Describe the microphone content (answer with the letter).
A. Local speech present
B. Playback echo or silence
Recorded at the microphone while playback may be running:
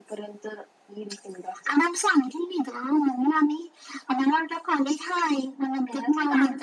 B